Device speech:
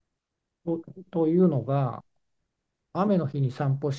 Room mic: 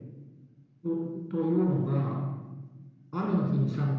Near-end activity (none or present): none